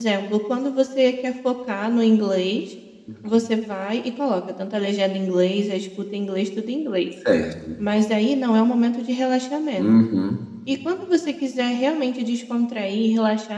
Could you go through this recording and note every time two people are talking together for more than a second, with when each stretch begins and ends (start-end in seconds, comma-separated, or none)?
none